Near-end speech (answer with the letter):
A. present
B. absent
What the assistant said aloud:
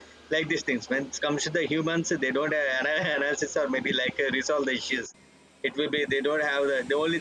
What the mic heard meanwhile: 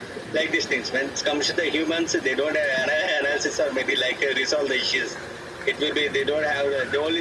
B